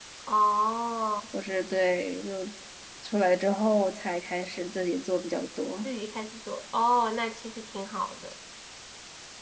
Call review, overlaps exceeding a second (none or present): none